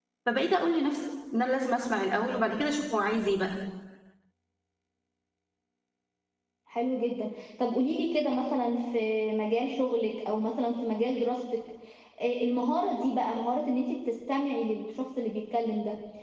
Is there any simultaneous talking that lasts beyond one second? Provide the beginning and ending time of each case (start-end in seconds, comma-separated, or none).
none